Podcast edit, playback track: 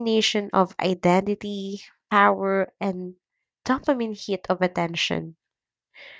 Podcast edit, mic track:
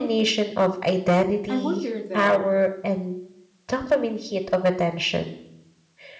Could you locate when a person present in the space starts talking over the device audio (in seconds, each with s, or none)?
1.5 s